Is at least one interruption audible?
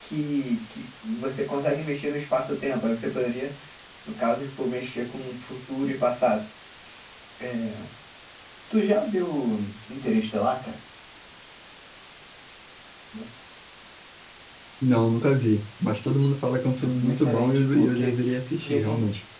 Yes, from 16.8 s

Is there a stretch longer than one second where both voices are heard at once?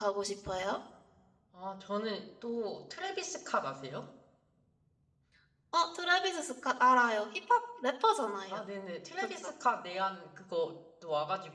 No

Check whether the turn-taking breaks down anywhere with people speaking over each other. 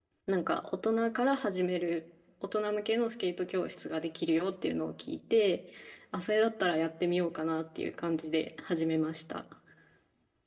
No

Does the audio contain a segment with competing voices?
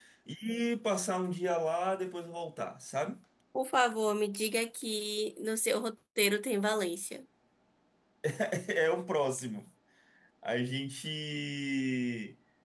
No

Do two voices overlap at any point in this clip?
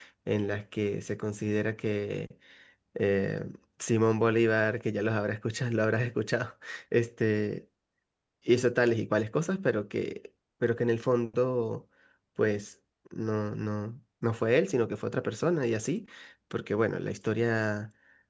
No

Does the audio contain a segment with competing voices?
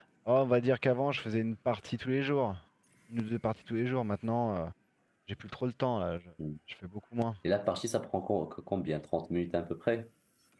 No

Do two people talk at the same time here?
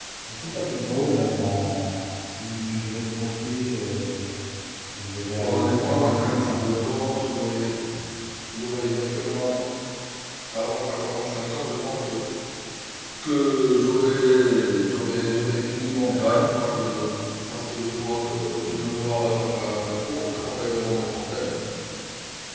Yes, from 5.2 s

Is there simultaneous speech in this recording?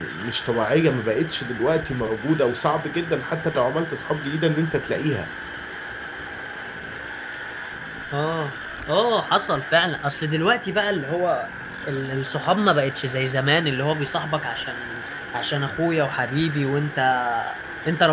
No

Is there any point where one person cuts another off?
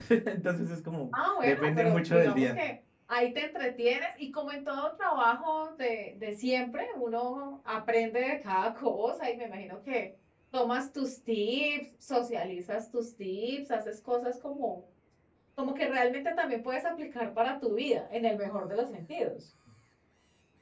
Yes, from 1.4 s

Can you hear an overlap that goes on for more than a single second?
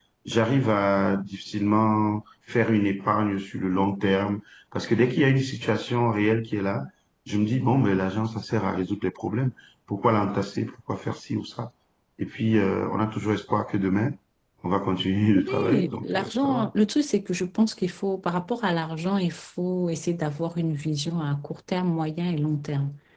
Yes, from 15.3 s

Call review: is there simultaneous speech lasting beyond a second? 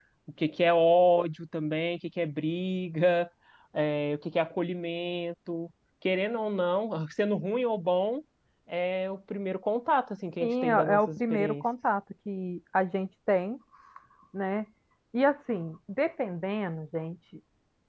Yes, from 10.4 s

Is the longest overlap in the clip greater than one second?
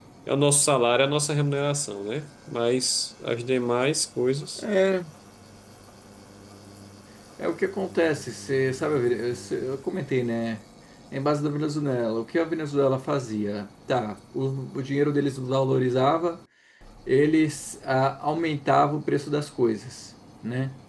No

